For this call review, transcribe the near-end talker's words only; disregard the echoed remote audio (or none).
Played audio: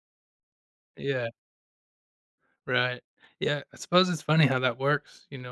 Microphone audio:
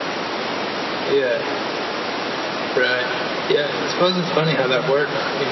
none